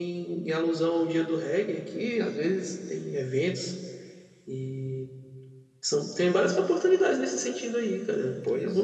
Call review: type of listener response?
taking over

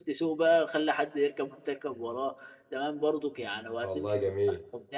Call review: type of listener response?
listening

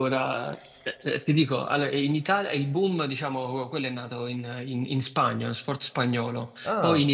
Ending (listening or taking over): listening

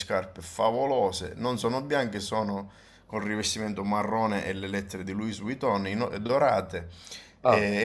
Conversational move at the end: listening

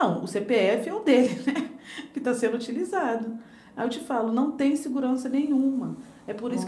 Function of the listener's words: listening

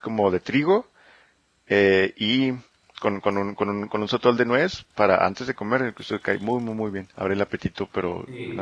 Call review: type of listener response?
taking over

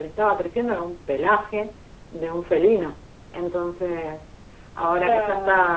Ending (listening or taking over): listening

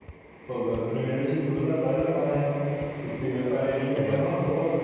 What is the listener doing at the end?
listening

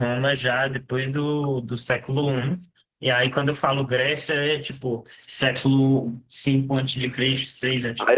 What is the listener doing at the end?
taking over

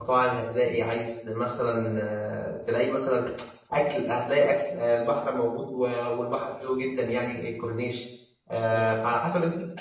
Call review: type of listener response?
listening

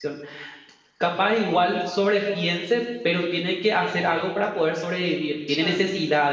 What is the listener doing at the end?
listening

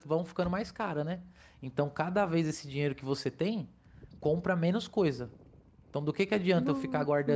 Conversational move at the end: listening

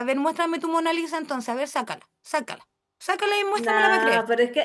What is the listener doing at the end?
taking over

